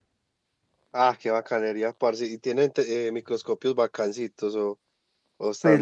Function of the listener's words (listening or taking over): taking over